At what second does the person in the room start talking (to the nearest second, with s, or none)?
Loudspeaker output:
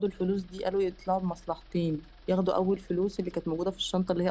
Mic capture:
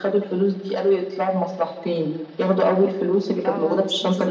3 s